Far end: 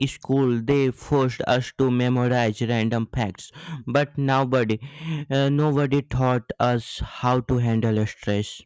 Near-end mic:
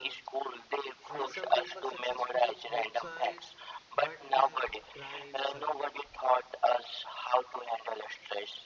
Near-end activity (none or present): present